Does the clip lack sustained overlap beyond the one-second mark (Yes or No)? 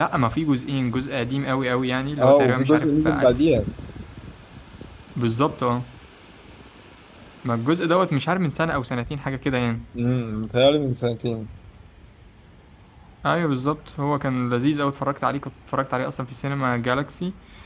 No